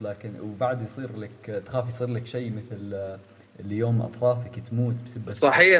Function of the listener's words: taking over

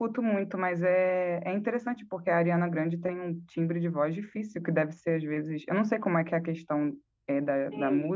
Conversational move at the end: taking over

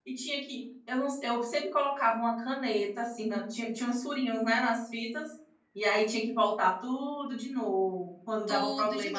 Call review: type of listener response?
taking over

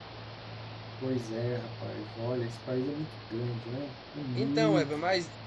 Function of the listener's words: taking over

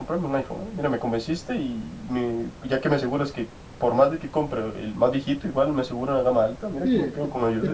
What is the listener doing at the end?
taking over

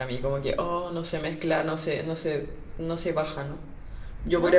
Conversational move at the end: listening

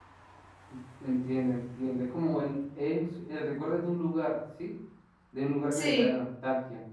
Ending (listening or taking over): listening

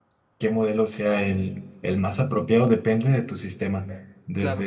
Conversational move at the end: listening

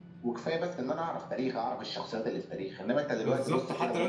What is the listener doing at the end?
taking over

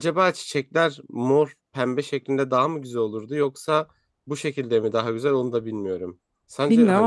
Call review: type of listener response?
taking over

